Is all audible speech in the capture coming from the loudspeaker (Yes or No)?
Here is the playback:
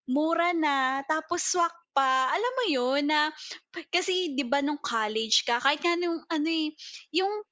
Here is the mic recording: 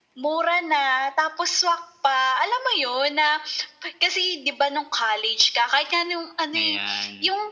No